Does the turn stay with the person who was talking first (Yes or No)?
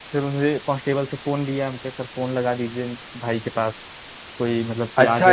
No